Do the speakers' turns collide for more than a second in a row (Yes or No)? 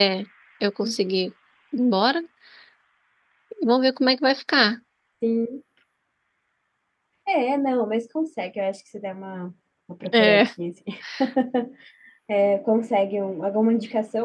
No